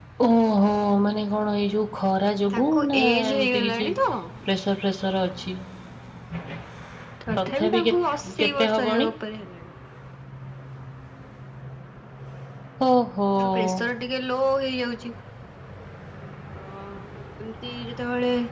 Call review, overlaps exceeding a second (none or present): present